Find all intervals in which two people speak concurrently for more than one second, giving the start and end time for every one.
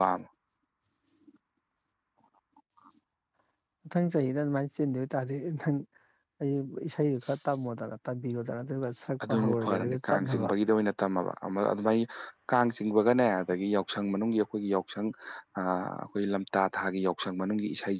9.3-10.5

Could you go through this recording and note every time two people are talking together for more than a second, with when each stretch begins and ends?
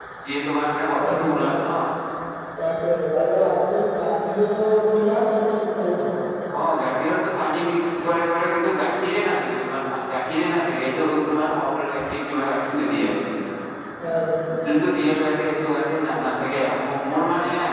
none

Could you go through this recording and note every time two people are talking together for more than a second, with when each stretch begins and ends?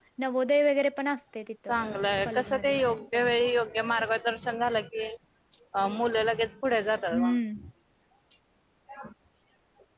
none

